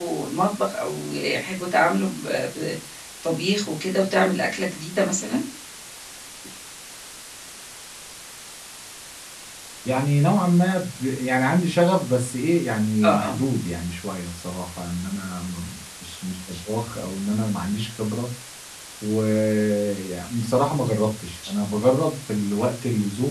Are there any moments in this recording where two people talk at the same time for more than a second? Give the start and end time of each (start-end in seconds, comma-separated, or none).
none